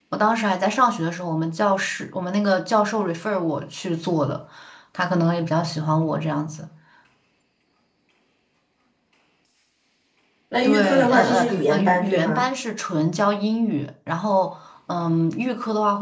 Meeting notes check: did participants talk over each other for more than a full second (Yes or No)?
Yes